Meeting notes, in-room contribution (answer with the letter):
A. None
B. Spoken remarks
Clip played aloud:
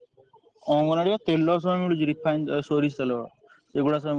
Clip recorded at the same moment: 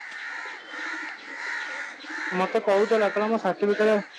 B